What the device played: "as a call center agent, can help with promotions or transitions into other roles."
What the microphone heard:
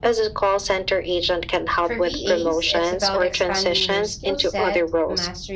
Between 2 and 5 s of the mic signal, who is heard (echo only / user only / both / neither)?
both